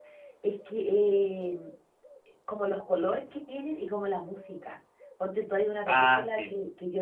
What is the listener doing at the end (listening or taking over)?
listening